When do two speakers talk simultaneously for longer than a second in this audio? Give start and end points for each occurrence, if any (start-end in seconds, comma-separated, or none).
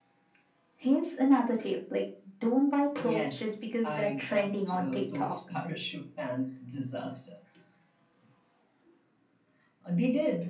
3.0-5.3